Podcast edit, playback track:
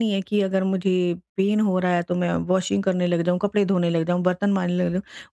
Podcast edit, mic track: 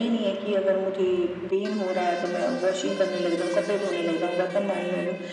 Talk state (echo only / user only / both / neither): echo only